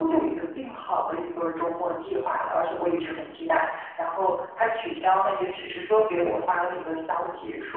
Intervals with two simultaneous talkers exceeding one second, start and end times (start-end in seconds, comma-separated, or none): none